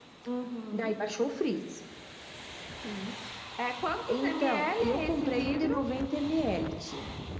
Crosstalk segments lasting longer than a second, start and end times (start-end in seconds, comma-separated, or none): 4.1-5.7